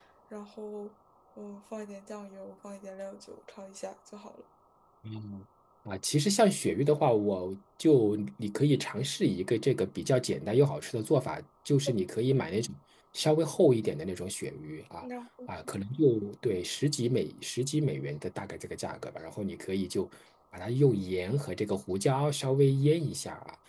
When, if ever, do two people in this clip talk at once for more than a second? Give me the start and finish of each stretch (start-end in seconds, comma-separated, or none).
none